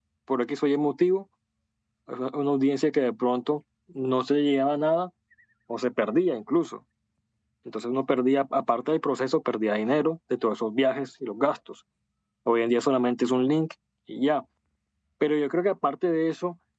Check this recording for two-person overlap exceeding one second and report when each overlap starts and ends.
none

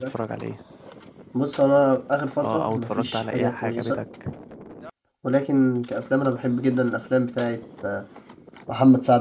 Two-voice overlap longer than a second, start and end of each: 2.4-4.0

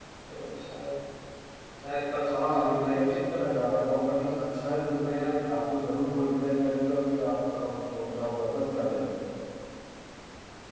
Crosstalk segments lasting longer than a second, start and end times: 2.3-3.9

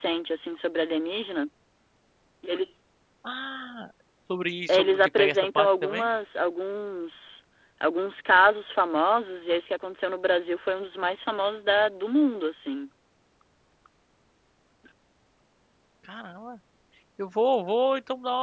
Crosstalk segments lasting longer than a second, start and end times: 4.7-6.1

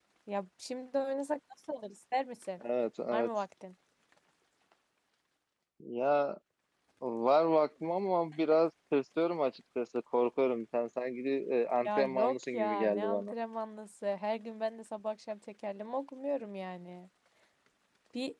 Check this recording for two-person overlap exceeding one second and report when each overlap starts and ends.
11.8-13.3

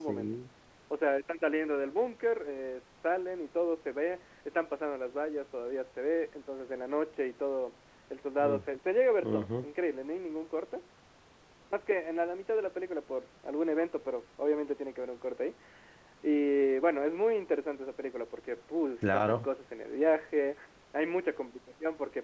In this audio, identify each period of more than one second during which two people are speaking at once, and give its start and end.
none

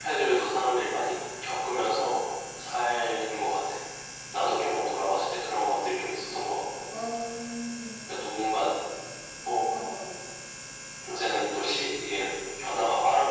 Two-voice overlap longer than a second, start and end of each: none

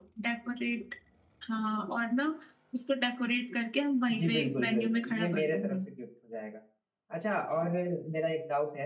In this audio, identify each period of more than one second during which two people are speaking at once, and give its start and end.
4.2-5.8

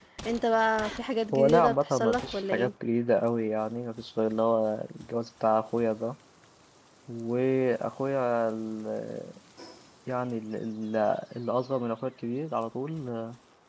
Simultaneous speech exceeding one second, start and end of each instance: 1.3-2.7

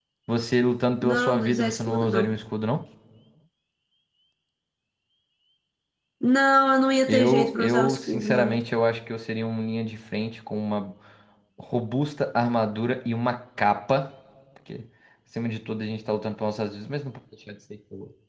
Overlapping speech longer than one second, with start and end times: 1.0-2.3, 7.1-8.6

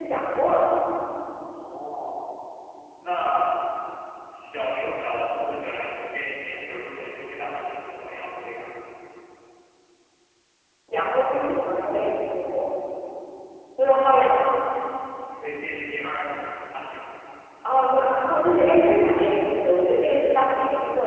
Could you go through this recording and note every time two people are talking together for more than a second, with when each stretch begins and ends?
none

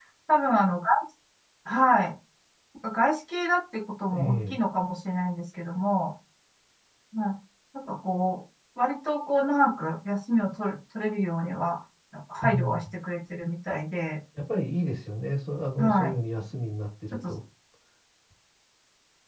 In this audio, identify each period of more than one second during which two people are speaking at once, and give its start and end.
none

